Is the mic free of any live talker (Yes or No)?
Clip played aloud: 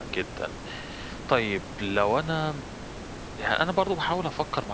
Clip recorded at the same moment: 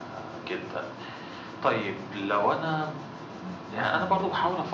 No